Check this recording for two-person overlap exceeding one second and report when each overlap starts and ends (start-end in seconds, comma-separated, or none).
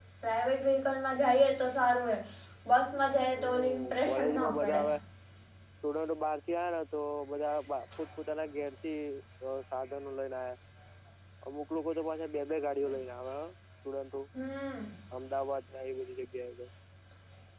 3.4-4.8